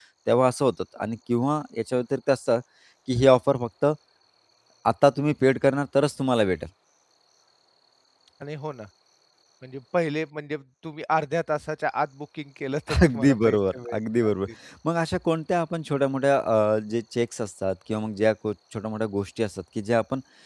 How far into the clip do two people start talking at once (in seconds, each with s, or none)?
13.1 s